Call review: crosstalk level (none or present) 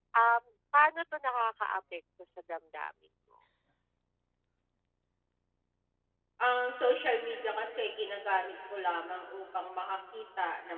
none